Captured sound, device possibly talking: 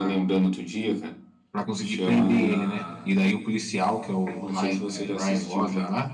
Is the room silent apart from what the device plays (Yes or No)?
No